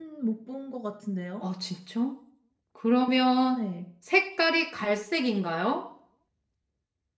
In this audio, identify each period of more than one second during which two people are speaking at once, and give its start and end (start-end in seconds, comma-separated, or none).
none